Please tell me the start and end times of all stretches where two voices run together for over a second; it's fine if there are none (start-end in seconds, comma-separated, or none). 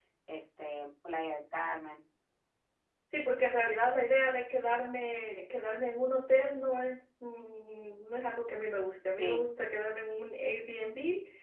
none